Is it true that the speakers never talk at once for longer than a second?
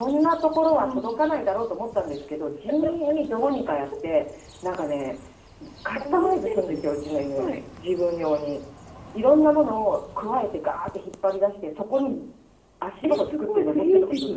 No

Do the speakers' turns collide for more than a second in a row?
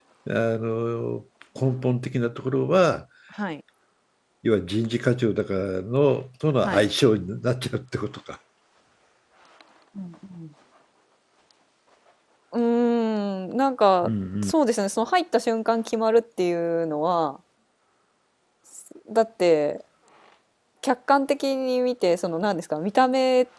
No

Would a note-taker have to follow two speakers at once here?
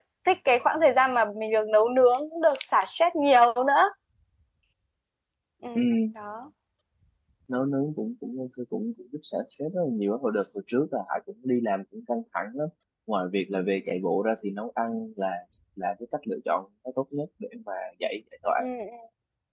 No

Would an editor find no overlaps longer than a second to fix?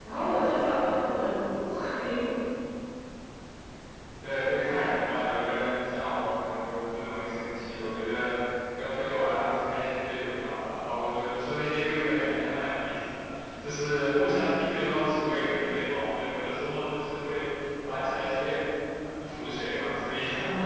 Yes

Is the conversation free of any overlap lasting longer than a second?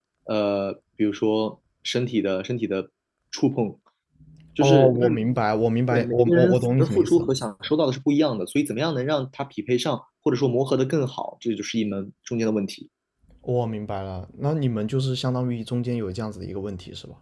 No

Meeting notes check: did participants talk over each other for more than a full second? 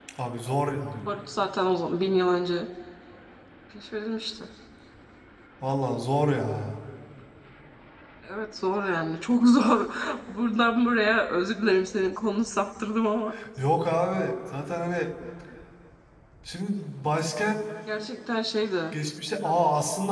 No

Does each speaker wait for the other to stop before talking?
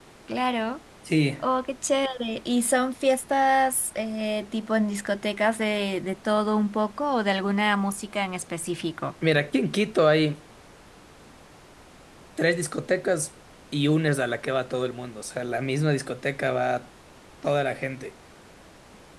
Yes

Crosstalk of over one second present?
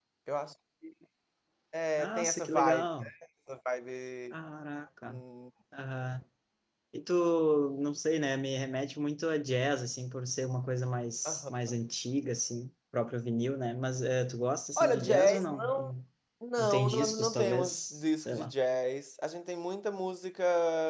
Yes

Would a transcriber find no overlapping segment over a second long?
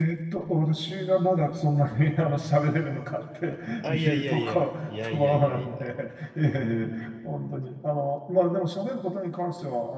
No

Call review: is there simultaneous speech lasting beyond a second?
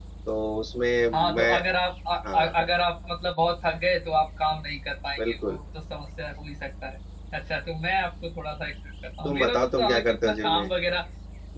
Yes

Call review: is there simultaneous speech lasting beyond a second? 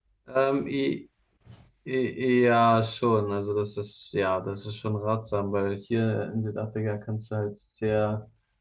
No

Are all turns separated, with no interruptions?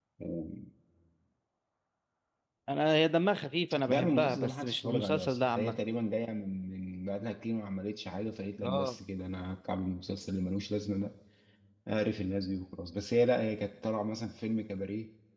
No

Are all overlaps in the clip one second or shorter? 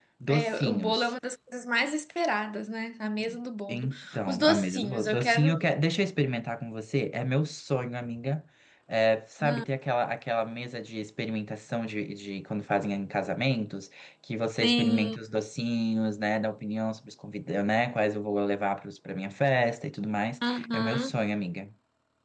No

